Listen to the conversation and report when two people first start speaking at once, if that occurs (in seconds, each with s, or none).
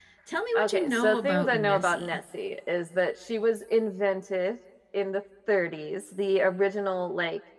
0.6 s